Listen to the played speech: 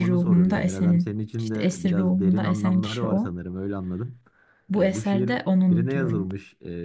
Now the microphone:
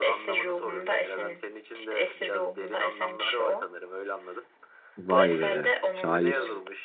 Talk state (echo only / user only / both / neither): both